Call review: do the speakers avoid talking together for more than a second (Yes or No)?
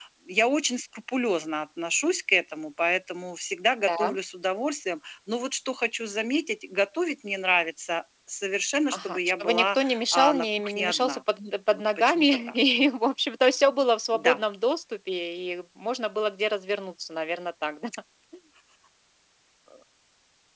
No